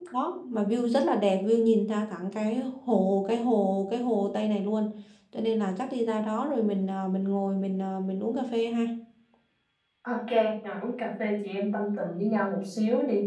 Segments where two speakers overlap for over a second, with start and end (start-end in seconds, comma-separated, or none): none